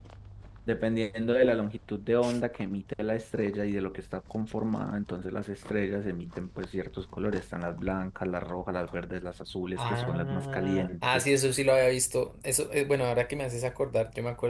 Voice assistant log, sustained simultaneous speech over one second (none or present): present